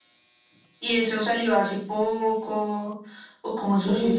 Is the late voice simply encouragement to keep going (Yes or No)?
No